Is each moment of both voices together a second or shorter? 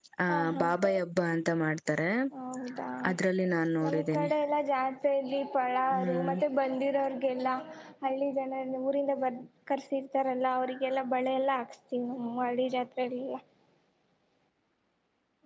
Yes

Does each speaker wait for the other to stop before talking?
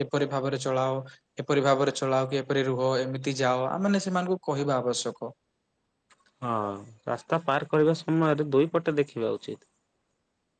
Yes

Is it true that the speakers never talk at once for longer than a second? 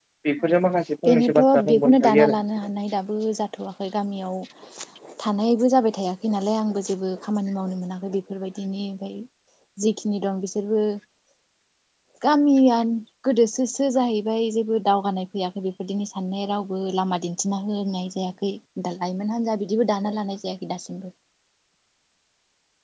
No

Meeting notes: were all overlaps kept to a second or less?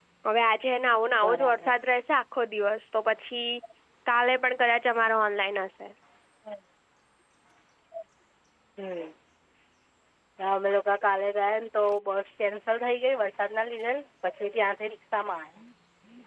Yes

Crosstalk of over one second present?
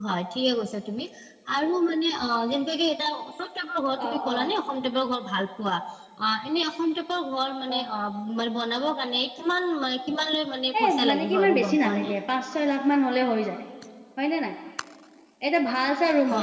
Yes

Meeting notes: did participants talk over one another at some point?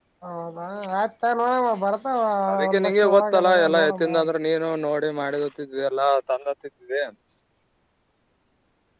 Yes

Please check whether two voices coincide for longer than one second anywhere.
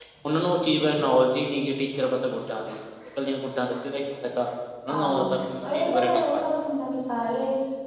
Yes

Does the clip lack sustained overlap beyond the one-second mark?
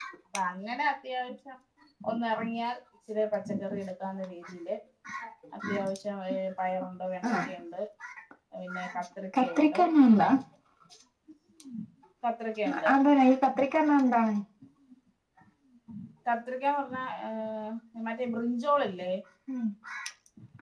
Yes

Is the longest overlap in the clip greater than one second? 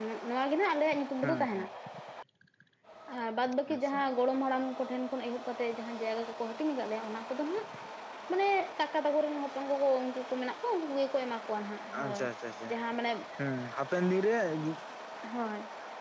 No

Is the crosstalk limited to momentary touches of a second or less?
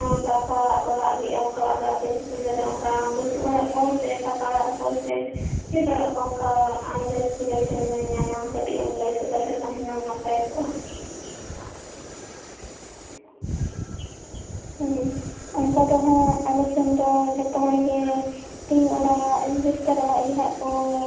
Yes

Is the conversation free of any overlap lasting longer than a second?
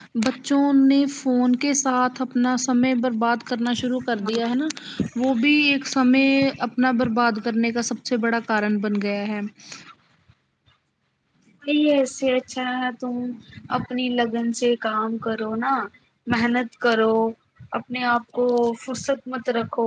Yes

